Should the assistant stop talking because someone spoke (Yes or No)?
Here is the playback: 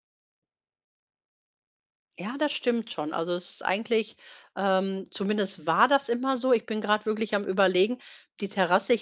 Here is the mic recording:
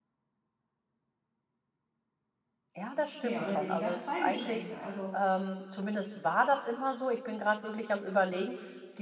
Yes